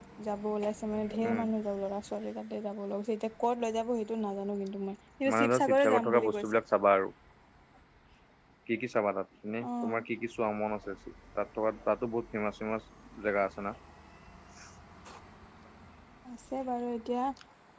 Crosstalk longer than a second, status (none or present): present